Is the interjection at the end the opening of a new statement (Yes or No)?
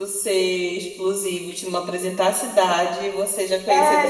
Yes